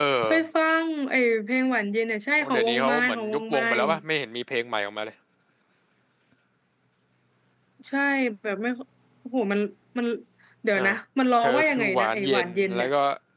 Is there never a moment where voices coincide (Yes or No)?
No